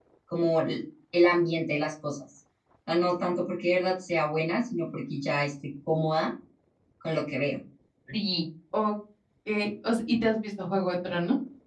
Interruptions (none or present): none